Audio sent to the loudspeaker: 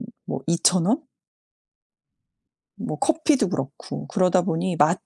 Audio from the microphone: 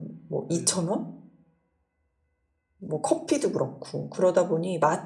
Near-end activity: present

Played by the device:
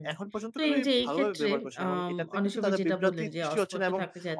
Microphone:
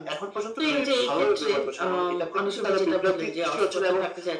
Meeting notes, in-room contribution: none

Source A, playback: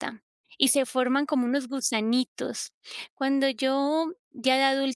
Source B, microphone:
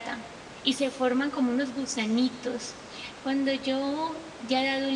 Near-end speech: none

